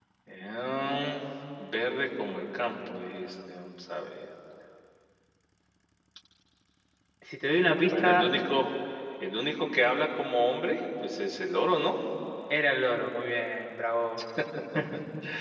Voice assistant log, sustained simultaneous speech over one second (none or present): none